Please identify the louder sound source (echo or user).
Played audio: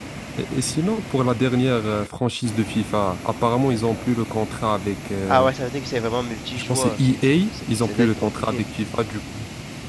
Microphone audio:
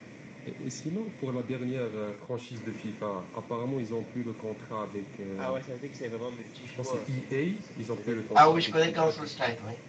user